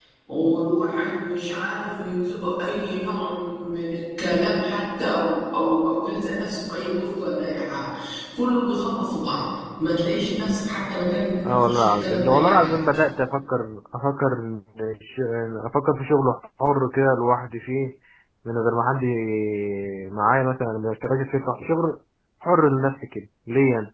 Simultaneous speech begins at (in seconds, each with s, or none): 11.4 s